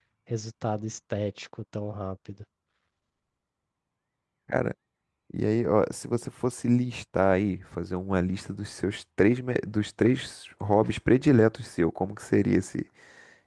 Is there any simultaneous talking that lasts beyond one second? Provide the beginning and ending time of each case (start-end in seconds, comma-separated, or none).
none